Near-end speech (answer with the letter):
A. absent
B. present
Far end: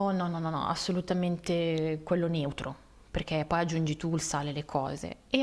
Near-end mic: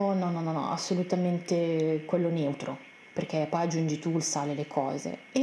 A